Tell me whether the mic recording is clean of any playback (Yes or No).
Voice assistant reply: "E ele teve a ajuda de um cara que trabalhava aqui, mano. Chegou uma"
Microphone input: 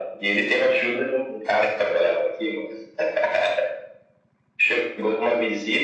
No